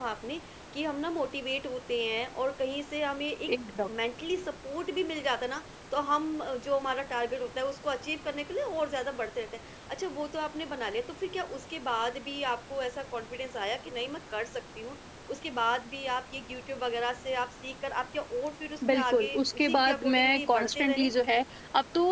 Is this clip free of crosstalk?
No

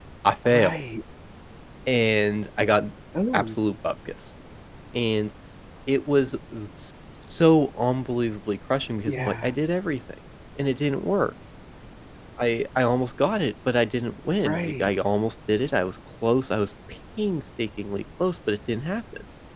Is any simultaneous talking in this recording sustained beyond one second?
No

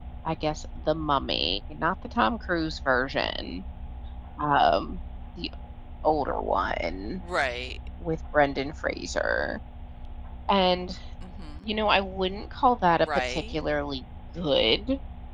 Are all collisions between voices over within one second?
Yes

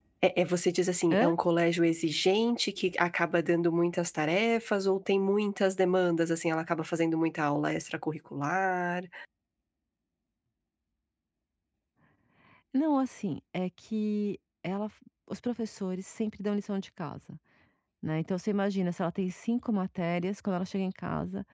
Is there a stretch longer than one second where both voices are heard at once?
No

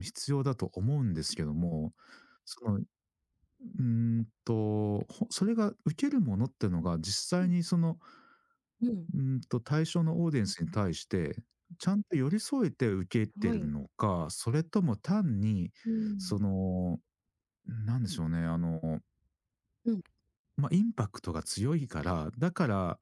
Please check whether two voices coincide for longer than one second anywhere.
No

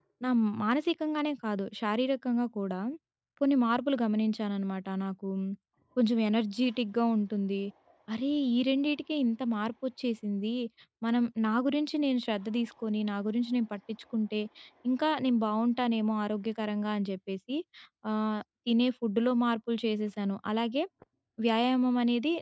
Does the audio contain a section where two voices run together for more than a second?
No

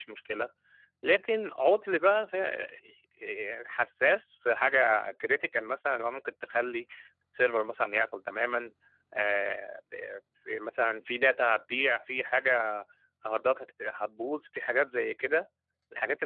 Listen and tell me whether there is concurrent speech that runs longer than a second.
No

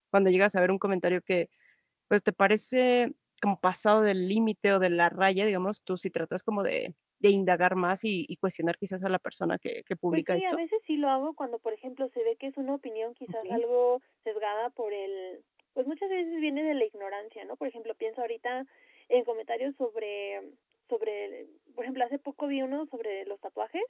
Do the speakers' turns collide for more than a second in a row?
No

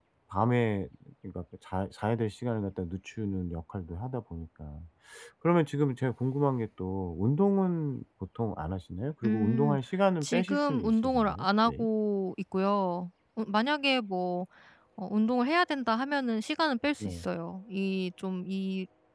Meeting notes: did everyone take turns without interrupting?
No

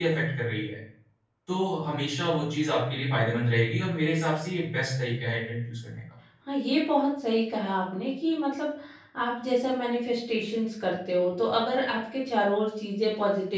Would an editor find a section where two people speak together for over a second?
No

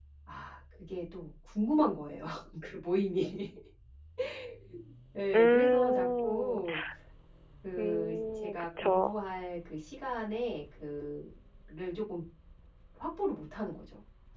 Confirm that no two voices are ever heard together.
No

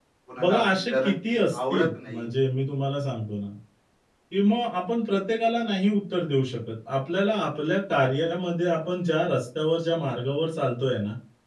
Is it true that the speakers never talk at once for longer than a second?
No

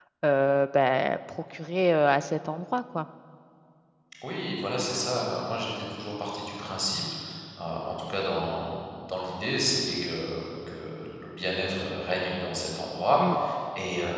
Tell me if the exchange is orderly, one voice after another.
Yes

